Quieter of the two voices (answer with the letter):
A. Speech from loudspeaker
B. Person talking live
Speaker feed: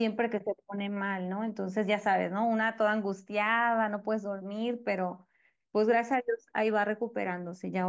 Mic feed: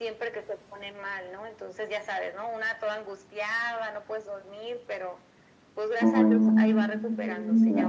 A